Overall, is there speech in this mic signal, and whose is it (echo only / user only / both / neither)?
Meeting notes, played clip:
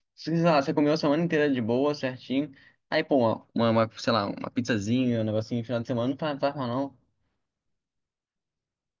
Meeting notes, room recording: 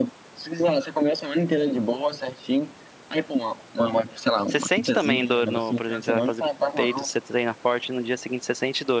both